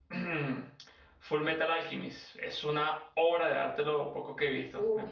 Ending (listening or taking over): taking over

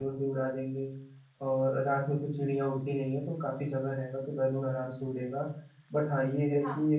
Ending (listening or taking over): listening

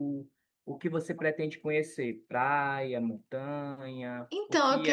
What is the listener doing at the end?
taking over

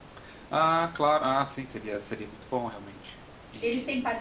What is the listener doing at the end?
taking over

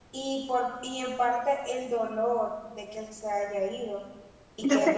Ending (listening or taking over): listening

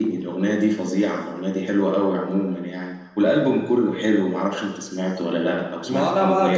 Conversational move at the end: taking over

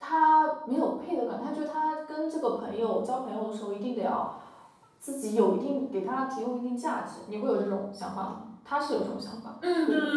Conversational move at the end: taking over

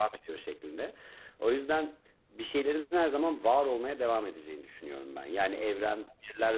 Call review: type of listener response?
listening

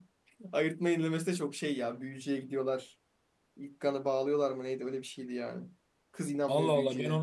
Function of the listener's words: taking over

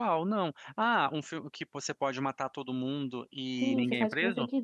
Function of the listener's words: taking over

